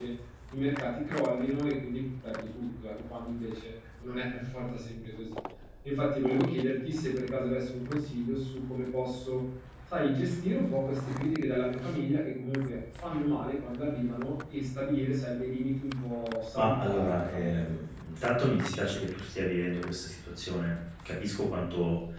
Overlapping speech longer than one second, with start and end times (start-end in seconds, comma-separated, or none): 16.5-17.8